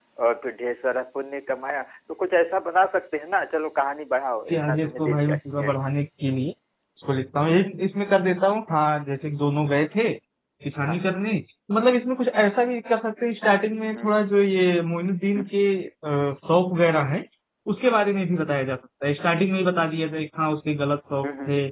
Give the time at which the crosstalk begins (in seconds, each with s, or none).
4.5 s